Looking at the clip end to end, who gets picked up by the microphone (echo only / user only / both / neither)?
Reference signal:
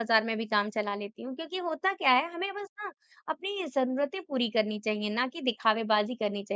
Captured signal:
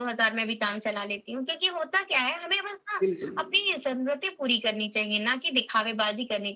both